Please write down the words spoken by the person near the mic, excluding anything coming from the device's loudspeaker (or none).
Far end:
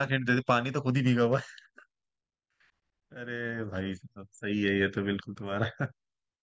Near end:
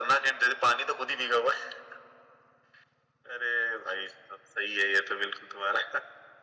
none